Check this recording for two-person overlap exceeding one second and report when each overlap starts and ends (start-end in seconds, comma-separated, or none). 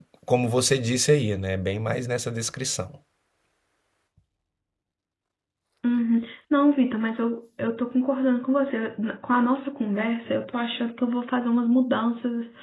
none